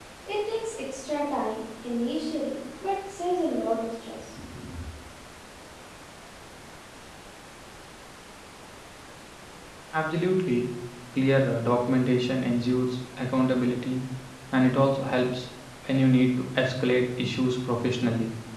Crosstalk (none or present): none